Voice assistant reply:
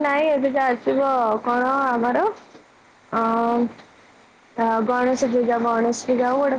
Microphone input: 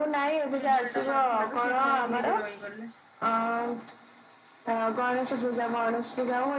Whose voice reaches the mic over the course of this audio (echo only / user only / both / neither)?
both